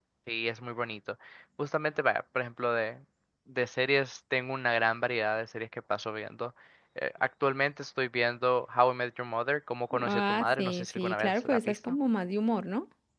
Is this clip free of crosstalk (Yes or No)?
No